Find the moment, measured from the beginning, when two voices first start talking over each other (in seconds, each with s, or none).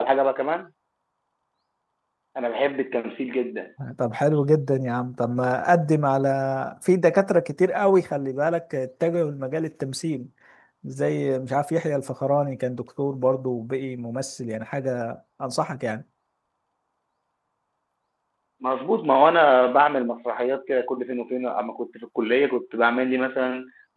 none